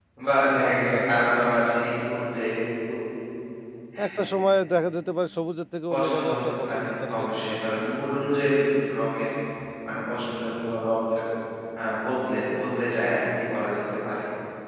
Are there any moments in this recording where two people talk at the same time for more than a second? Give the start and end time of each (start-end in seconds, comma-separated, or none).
5.9-7.9